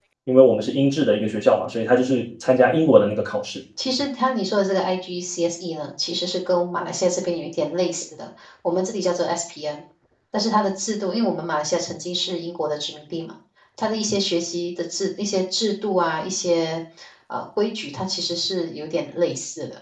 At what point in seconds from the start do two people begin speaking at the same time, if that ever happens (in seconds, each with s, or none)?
none